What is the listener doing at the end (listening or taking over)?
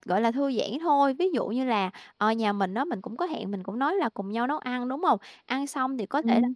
listening